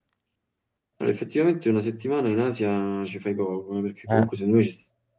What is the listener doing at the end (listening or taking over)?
listening